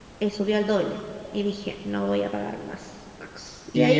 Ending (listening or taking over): taking over